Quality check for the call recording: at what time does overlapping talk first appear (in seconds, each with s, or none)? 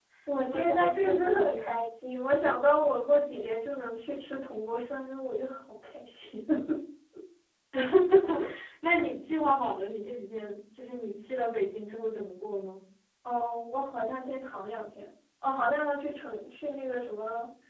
0.5 s